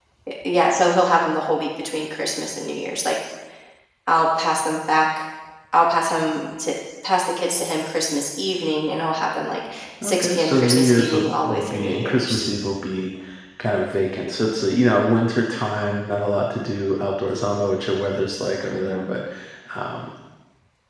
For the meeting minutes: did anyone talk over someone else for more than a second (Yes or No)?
Yes